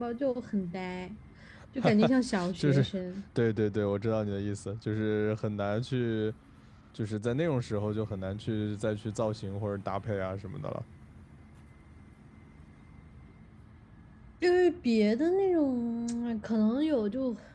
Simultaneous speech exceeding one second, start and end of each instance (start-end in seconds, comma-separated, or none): none